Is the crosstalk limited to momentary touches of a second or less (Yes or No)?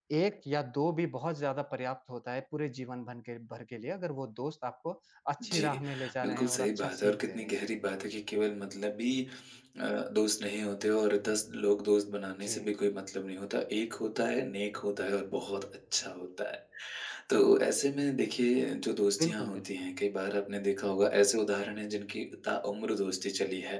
No